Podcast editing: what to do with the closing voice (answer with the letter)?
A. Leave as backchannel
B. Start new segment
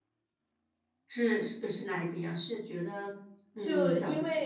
B